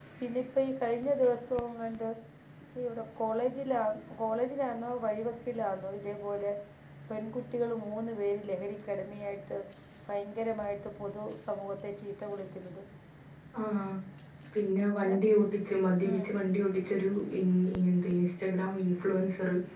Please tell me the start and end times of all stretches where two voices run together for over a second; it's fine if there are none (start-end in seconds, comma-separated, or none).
none